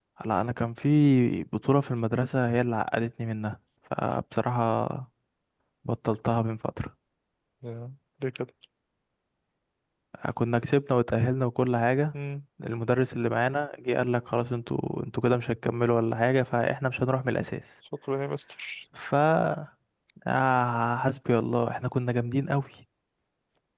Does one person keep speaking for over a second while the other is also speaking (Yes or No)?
No